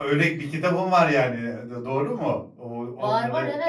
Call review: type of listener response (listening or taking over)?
taking over